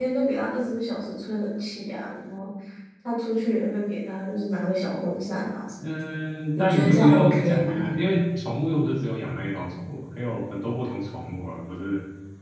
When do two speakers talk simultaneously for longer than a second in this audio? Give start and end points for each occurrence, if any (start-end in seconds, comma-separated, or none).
6.5-7.9